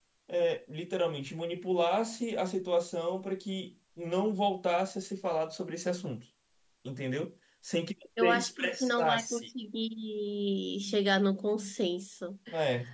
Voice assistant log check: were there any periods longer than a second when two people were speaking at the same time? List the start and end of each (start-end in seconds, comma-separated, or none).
8.2-9.5